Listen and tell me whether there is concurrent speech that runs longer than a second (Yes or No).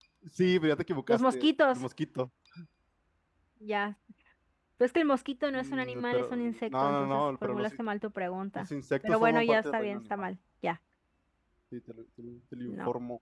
Yes